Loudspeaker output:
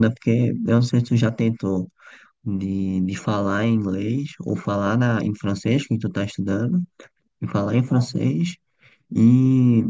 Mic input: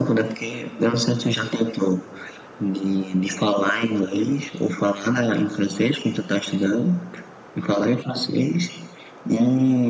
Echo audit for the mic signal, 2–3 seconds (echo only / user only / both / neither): echo only